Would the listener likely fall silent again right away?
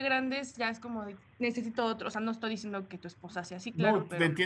No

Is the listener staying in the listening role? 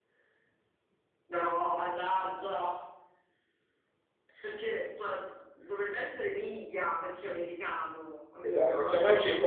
No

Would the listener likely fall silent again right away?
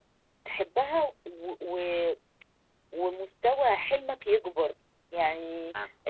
Yes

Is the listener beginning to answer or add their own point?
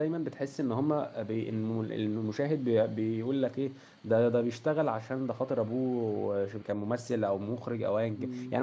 Yes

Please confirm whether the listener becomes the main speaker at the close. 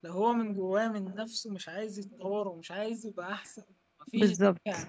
No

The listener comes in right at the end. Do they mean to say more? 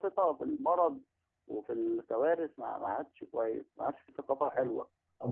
Yes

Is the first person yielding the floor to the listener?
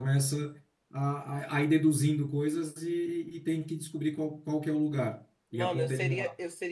Yes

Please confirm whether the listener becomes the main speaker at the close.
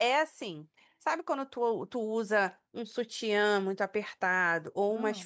No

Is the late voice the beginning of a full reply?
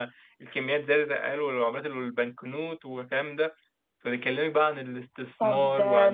Yes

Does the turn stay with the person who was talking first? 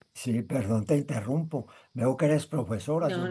Yes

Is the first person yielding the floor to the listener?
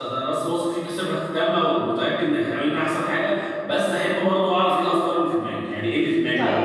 Yes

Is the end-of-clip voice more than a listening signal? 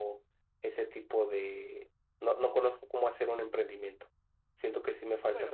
Yes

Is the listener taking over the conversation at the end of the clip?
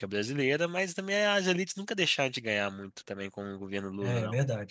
Yes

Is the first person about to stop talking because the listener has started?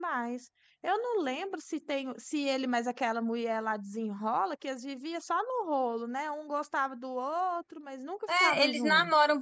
Yes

